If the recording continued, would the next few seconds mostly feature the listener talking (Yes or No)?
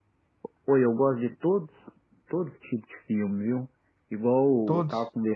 No